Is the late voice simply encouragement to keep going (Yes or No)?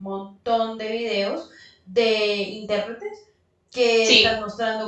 Yes